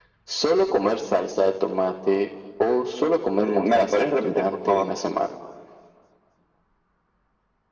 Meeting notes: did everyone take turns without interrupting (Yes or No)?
No